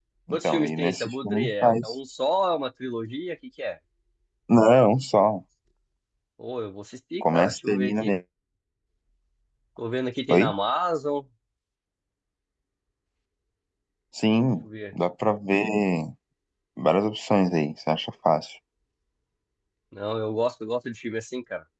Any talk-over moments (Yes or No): Yes